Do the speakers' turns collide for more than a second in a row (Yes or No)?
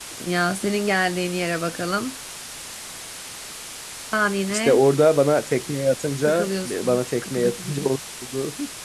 Yes